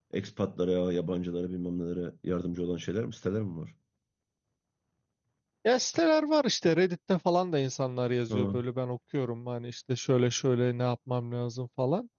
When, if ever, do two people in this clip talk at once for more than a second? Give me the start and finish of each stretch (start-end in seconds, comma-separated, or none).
none